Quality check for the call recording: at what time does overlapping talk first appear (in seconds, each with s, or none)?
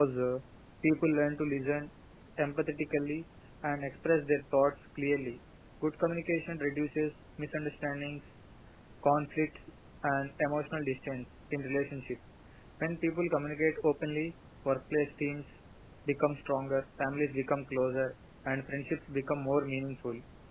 none